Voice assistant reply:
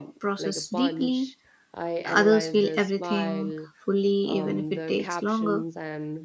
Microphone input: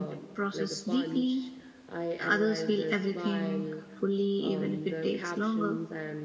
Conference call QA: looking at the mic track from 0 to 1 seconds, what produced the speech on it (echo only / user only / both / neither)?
echo only